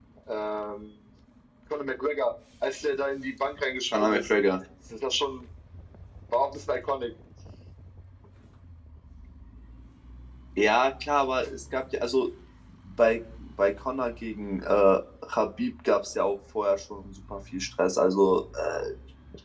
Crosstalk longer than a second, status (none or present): none